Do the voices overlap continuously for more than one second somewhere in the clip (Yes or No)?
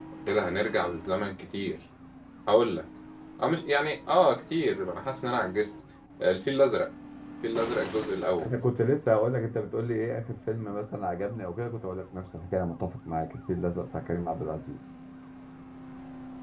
No